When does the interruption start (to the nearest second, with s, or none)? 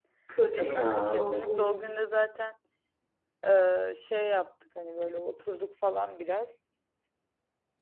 1 s